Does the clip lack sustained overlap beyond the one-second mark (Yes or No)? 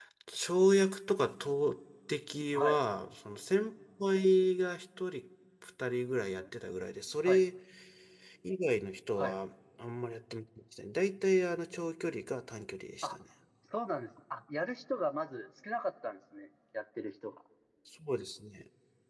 Yes